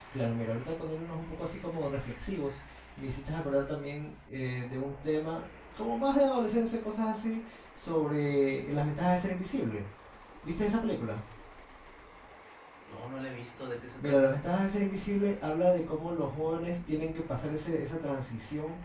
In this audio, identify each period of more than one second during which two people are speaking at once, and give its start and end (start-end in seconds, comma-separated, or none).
none